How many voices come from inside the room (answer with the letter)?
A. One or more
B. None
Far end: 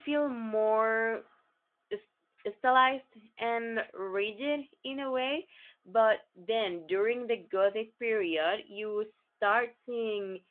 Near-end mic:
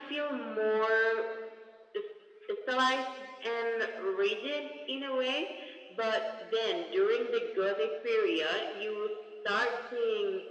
B